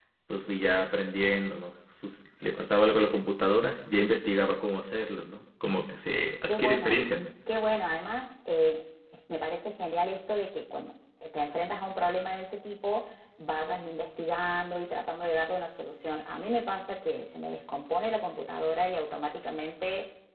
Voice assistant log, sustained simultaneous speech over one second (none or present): none